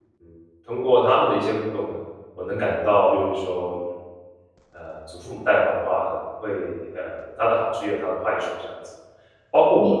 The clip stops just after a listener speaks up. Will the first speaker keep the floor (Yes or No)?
Yes